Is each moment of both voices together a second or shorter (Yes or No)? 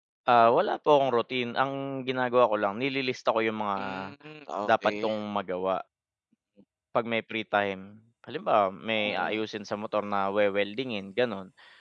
Yes